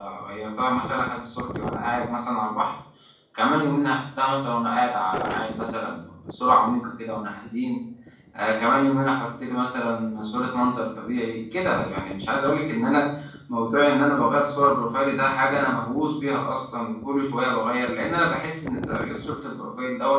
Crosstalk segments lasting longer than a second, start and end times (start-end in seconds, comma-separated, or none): none